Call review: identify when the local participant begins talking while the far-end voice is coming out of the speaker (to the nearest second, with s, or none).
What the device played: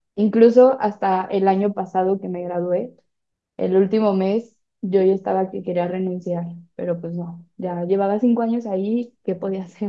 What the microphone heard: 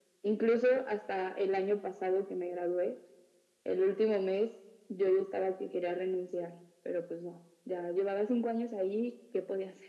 none